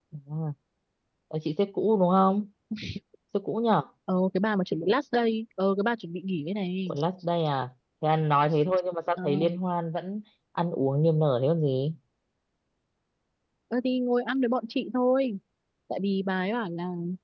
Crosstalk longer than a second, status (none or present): none